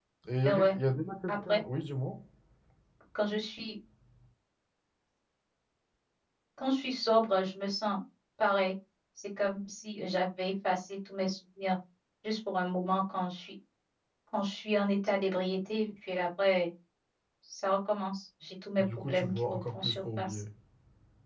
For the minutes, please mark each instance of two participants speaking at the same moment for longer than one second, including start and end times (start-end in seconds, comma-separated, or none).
18.8-20.4